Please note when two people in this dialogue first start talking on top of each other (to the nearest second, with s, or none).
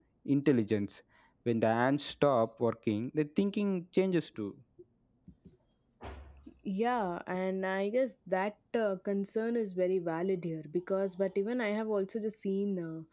none